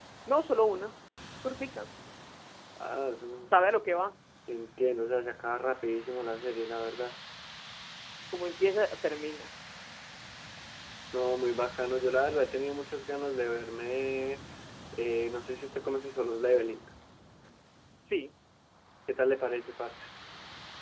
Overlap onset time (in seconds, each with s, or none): none